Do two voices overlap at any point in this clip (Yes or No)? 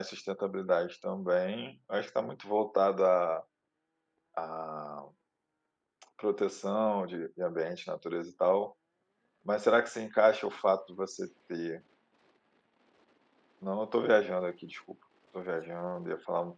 No